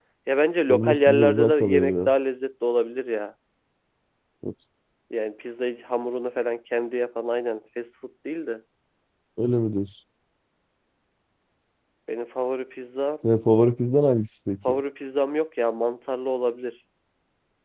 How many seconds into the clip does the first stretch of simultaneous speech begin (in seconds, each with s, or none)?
0.7 s